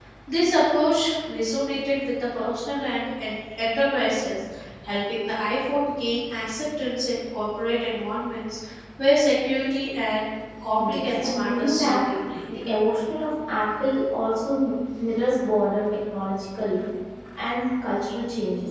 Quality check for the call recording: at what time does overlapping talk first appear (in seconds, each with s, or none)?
10.7 s